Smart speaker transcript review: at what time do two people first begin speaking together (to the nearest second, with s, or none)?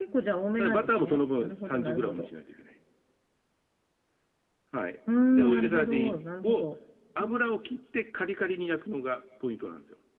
1 s